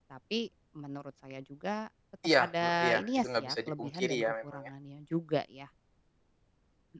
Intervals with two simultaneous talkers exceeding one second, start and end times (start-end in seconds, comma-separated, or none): 2.4-4.7